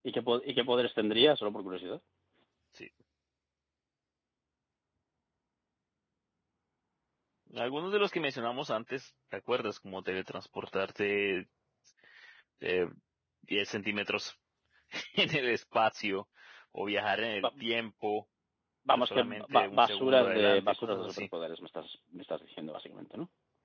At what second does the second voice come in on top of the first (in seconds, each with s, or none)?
18.9 s